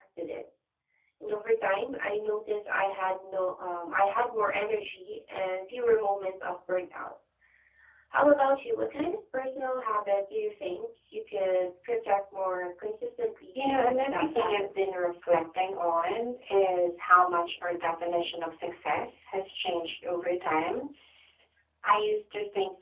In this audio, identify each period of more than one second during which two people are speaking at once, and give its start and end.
13.6-15.0

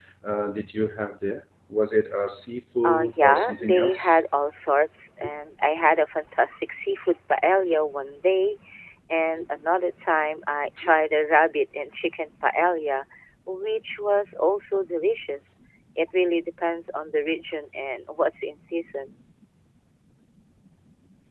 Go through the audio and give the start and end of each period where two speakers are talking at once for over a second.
2.8-4.1

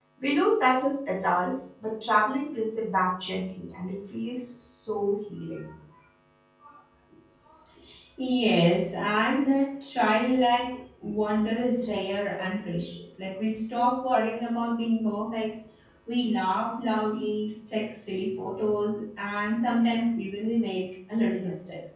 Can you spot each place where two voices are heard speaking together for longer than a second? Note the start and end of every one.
none

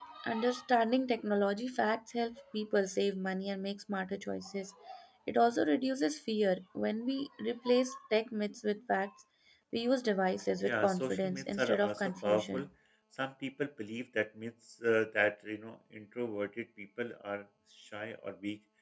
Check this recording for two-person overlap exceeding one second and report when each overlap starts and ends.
10.6-12.7

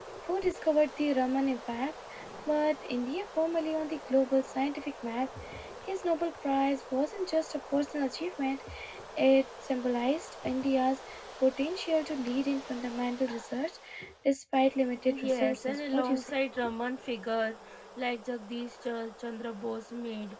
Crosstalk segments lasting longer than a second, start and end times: 15.1-16.3

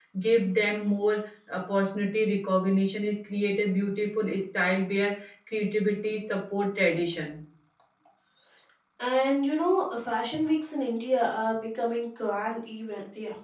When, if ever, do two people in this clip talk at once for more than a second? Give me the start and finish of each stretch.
none

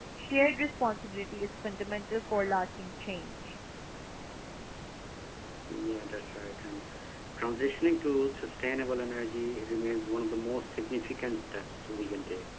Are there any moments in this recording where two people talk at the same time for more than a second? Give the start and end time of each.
none

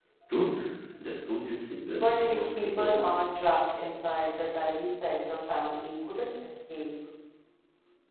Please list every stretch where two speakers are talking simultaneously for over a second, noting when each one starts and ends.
1.9-3.2

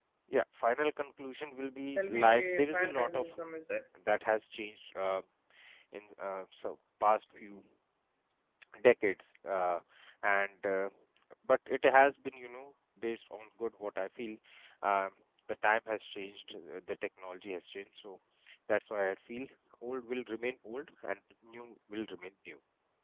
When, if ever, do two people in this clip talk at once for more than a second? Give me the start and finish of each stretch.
1.9-3.4

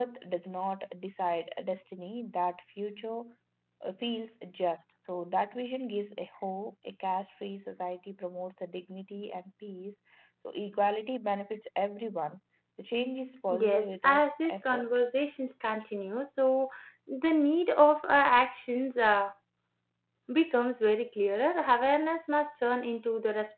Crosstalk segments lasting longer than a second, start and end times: 13.5-14.9

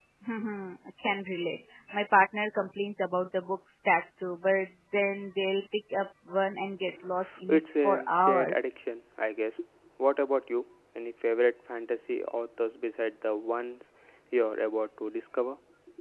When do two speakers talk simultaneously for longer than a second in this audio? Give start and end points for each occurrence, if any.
7.5-8.9

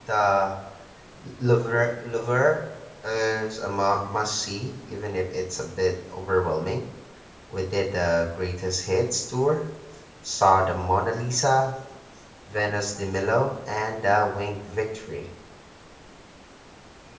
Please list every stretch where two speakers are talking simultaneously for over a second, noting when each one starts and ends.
none

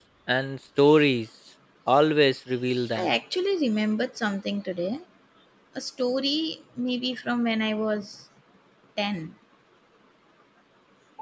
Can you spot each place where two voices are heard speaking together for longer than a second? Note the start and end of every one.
none

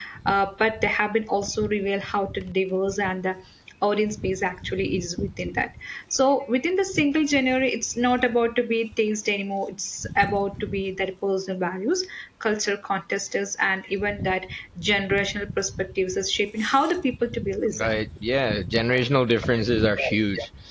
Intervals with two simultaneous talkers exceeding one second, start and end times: none

